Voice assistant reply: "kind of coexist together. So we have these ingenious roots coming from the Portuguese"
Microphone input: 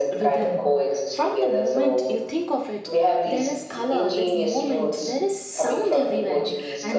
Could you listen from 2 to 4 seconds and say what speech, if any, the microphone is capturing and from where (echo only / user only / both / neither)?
both